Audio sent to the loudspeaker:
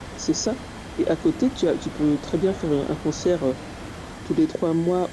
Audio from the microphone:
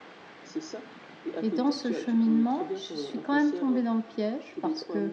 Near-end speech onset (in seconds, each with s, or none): 1.4 s